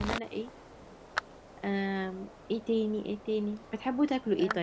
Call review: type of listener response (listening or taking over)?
listening